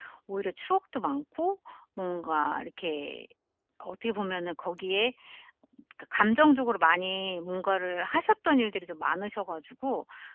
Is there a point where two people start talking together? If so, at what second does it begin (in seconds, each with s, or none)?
none